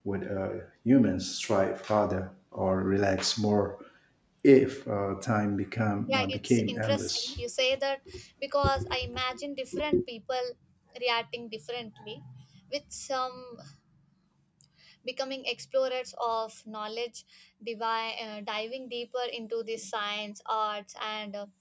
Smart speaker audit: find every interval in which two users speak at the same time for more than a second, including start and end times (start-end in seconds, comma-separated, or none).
6.1-7.4